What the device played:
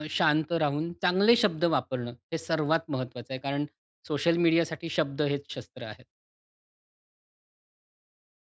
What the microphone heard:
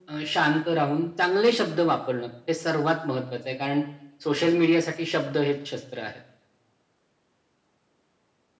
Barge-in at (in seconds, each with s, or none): none